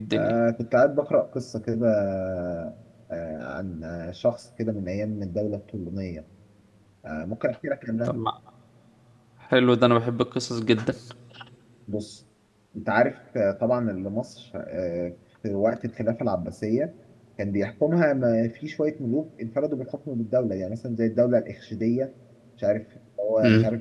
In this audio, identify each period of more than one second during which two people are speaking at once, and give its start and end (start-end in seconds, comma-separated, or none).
none